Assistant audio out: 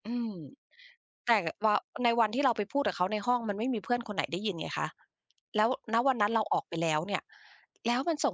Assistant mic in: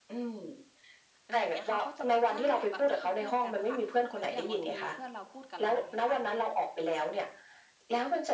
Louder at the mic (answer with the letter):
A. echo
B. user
A